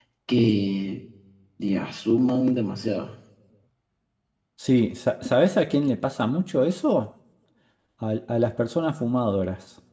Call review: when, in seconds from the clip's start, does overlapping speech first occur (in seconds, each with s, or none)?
none